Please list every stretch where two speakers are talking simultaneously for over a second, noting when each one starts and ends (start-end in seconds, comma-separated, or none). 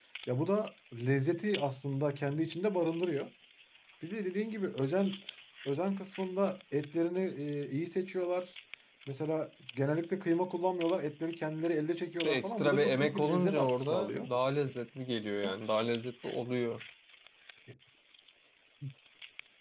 12.2-14.3